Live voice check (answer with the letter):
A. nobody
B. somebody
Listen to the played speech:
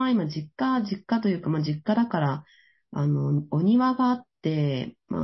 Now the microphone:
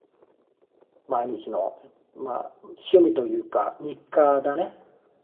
B